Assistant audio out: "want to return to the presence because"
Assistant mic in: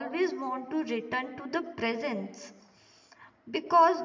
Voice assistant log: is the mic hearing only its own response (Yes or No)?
Yes